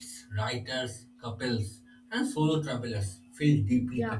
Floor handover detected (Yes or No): Yes